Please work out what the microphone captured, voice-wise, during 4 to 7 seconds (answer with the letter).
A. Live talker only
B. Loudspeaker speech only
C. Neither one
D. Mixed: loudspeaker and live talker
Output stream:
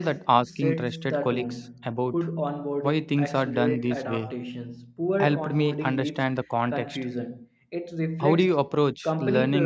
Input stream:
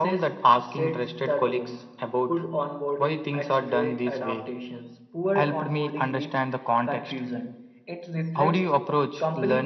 B